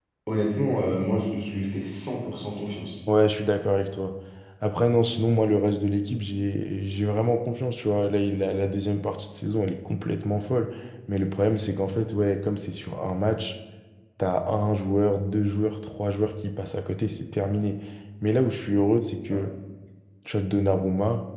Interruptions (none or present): none